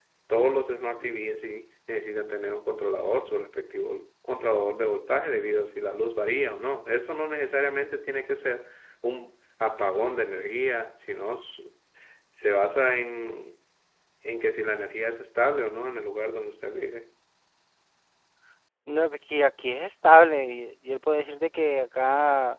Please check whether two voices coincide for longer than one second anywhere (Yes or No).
No